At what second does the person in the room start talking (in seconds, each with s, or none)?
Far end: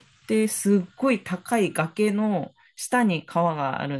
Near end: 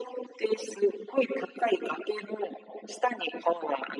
none